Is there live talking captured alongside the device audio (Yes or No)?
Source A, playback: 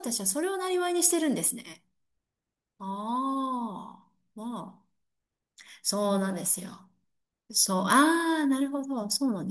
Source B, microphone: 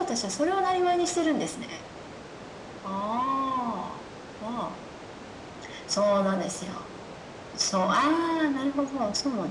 No